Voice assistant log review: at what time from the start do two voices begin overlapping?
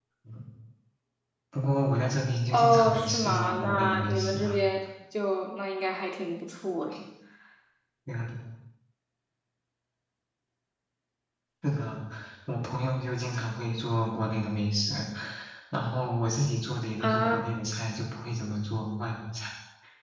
2.5 s

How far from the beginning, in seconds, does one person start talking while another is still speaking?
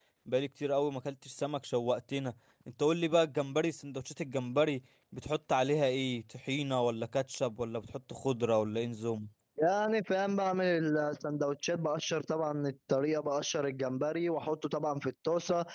none

